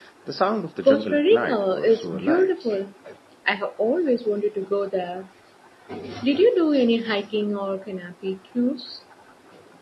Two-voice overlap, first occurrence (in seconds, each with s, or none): 0.8 s